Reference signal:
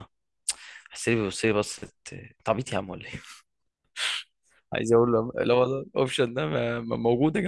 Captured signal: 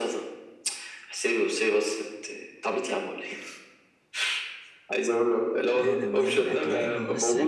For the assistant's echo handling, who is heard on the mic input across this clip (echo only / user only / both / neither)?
both